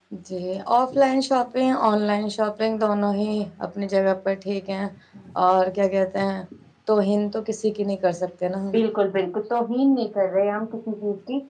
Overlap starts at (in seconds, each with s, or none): none